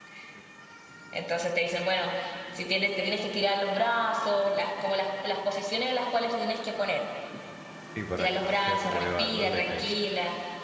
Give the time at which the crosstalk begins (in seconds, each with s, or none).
8.2 s